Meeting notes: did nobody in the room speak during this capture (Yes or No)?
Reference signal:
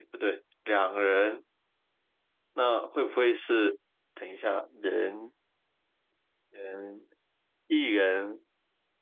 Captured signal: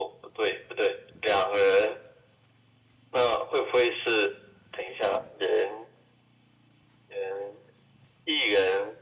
Yes